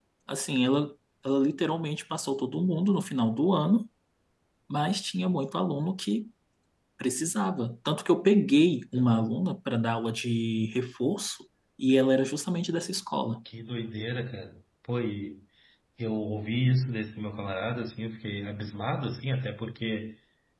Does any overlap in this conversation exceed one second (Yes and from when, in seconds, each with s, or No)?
No